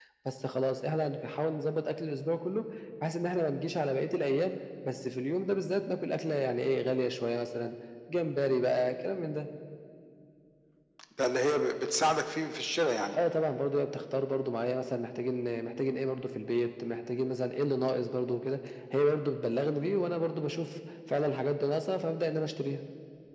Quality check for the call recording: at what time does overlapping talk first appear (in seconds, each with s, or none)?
none